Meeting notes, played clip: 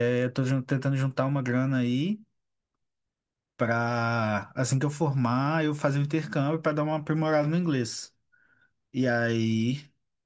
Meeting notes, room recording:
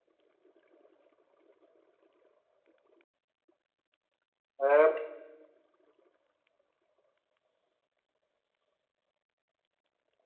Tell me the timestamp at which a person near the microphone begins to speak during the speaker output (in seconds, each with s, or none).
4.6 s